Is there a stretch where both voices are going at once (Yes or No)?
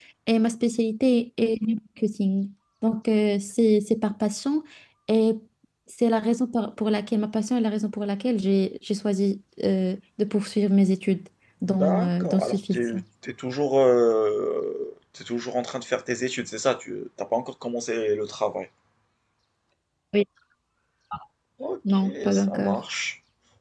Yes